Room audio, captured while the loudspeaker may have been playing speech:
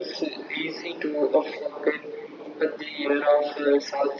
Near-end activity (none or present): none